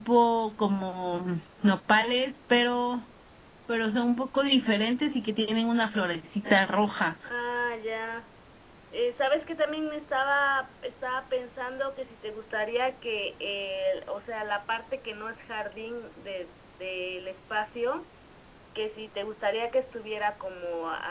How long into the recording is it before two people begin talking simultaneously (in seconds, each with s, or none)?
none